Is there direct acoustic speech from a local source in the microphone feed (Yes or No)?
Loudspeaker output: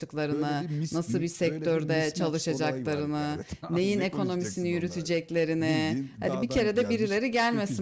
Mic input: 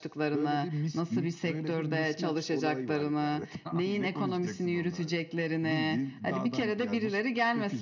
No